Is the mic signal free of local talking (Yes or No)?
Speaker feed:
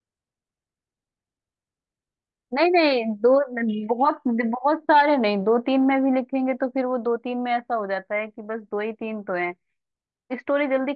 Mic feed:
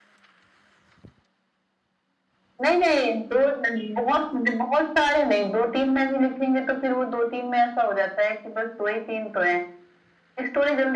Yes